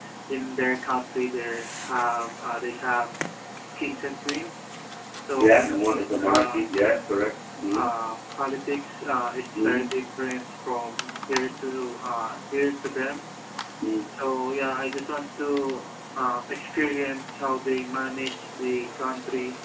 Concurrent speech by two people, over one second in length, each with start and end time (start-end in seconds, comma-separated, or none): 5.4-6.6